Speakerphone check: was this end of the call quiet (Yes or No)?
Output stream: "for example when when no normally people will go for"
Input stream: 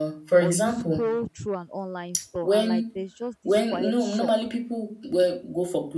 No